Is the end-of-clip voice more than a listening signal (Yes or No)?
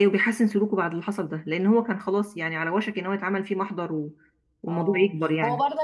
Yes